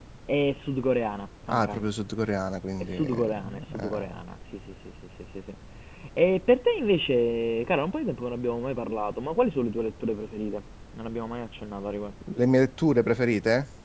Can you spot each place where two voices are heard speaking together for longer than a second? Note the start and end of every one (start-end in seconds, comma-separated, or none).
2.8-4.2